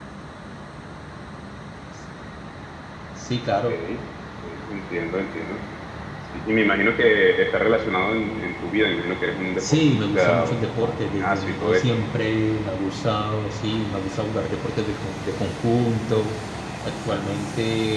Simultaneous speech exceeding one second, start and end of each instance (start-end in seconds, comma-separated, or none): 9.6-12.1